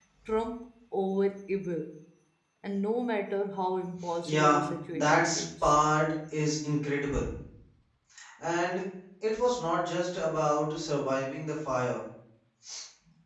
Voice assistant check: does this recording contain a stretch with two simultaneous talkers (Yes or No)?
Yes